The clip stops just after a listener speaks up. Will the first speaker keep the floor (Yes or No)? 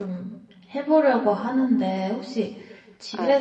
Yes